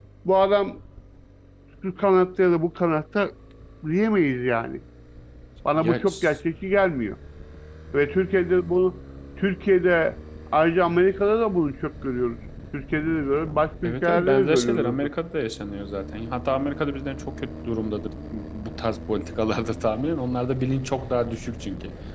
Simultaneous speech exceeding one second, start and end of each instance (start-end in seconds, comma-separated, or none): 13.8-15.1